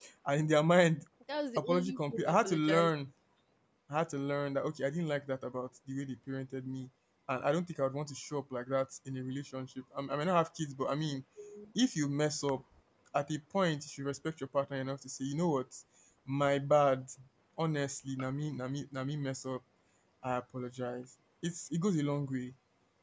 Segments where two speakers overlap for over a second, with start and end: 1.6-2.9

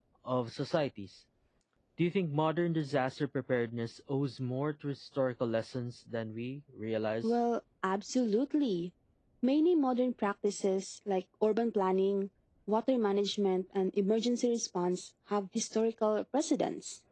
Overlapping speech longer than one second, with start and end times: none

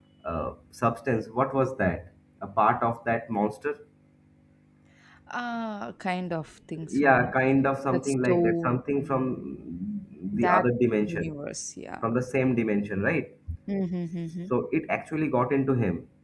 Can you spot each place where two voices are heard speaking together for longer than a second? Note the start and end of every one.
7.9-9.3

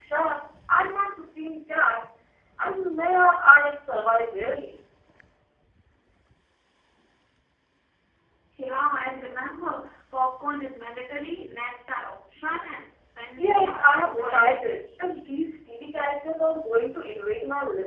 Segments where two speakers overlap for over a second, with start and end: 13.4-14.7

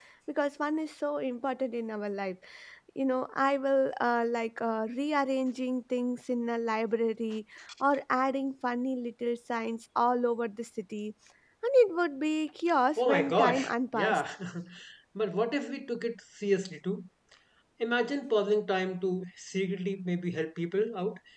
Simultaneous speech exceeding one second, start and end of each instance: 13.0-14.2

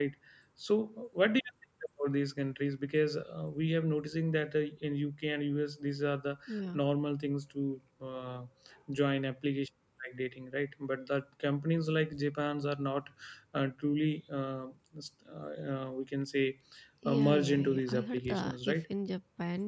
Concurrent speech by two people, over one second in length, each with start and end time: 17.0-18.8

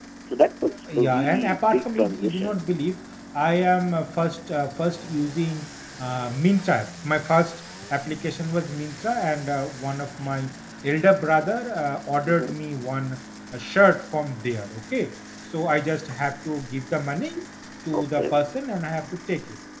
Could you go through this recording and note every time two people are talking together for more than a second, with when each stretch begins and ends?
1.0-2.6

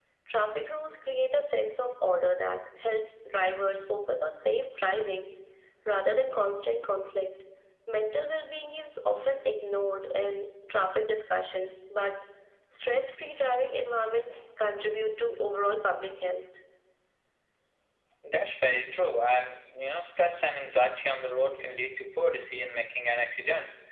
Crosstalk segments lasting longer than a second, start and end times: none

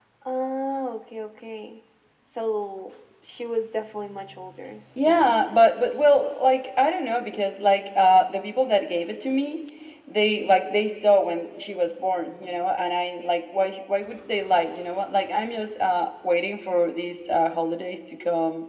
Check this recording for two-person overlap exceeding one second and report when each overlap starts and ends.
none

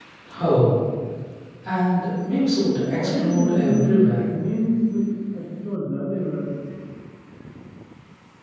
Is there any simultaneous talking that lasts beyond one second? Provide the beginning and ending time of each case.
2.9-4.3

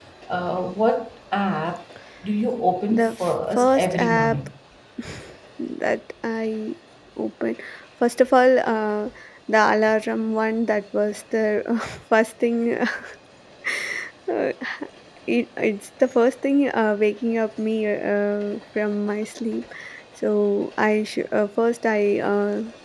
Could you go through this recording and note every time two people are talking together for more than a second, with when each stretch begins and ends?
2.9-4.4

